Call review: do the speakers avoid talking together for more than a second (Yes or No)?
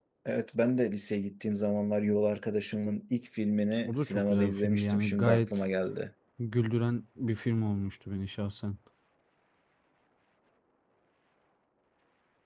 No